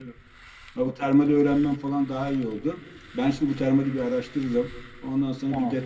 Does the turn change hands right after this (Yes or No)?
No